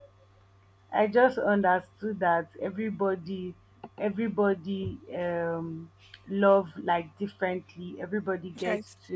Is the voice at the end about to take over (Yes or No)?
No